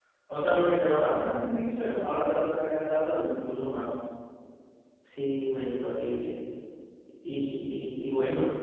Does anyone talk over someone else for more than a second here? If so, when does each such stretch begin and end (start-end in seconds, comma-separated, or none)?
none